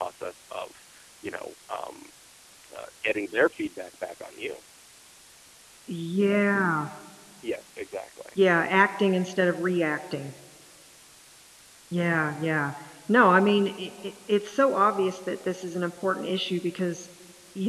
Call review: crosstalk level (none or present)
none